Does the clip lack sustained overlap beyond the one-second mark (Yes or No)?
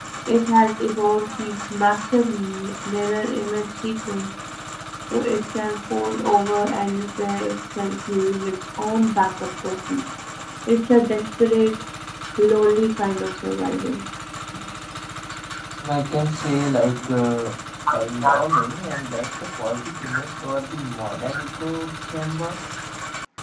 Yes